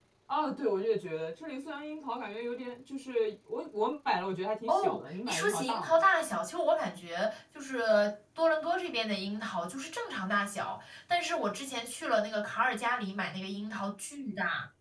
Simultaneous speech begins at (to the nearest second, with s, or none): 5 s